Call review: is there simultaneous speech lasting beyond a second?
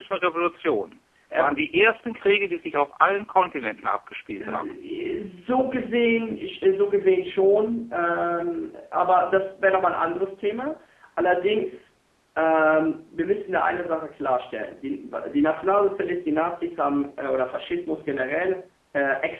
No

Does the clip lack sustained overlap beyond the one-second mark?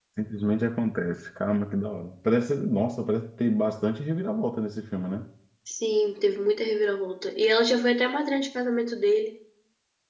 Yes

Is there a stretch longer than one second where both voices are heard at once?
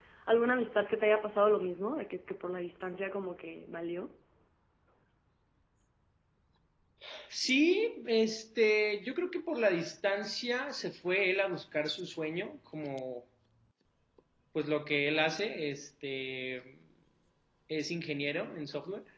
No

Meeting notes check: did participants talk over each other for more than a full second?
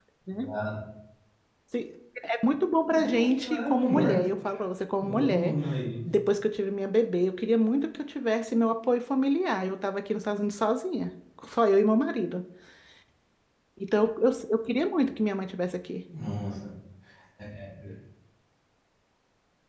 Yes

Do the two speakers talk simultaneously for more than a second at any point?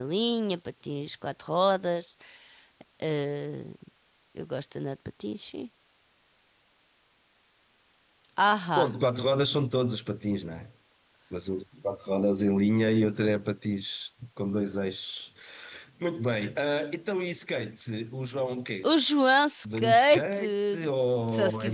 Yes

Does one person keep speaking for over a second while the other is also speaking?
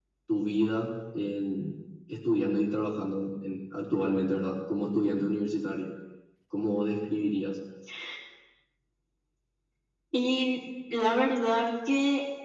No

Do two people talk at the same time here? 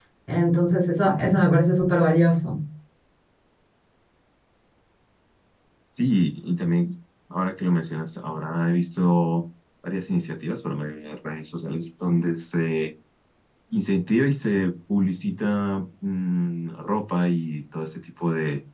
No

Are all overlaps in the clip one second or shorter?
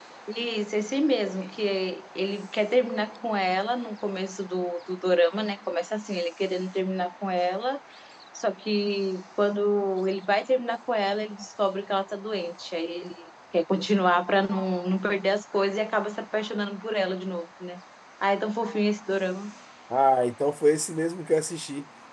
Yes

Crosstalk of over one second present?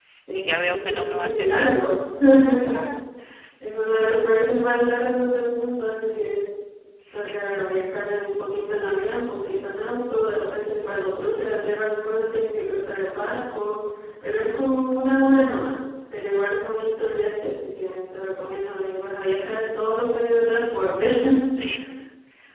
Yes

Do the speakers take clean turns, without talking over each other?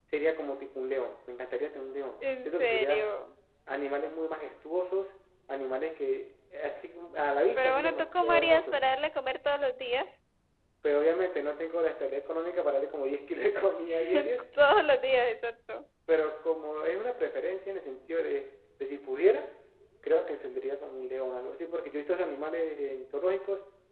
No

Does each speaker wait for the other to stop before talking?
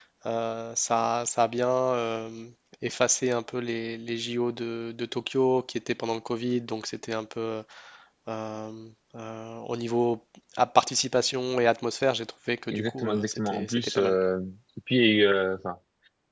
No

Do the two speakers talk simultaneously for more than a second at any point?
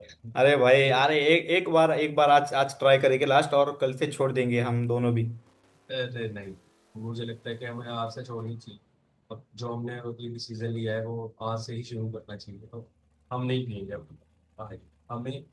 No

